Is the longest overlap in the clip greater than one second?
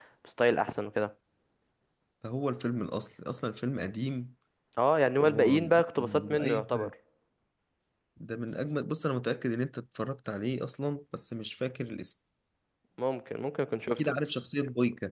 Yes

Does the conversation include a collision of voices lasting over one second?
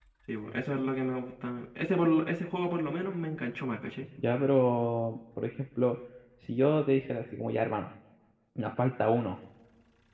No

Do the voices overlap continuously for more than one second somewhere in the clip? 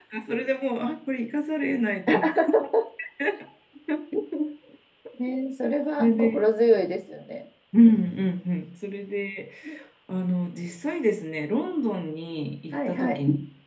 No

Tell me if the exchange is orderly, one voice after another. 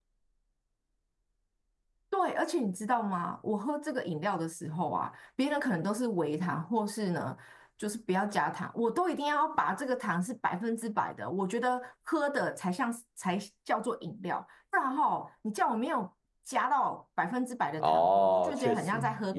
No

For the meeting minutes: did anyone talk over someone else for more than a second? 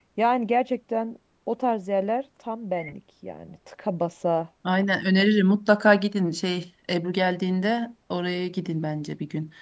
No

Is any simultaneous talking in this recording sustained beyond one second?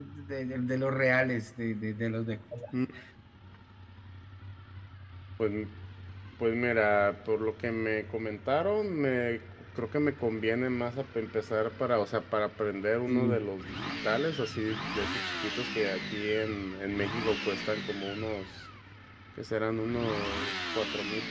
No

